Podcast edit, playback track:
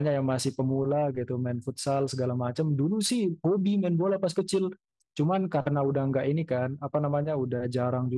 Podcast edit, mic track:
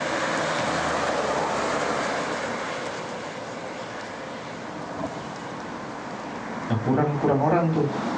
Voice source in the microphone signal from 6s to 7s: user only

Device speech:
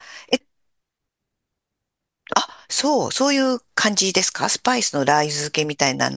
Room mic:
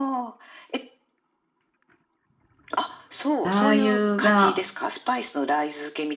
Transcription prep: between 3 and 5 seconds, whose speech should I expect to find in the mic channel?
both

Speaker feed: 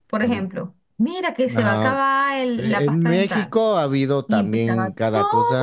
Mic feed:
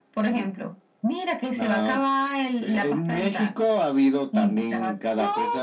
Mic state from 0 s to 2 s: echo only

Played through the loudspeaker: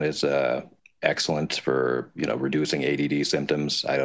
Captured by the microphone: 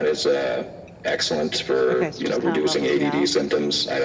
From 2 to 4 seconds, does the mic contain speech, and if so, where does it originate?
both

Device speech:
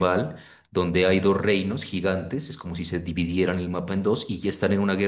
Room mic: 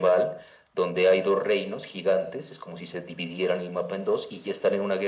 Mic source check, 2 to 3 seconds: echo only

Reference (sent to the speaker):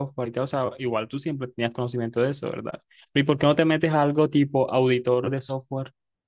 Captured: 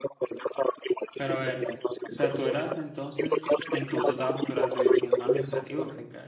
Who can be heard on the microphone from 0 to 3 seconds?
both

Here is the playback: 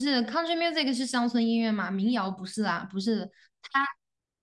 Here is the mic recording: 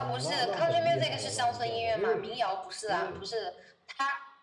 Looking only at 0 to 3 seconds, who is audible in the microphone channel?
both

